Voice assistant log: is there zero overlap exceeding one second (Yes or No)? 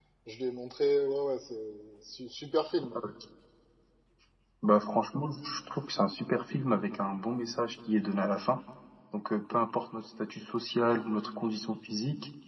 Yes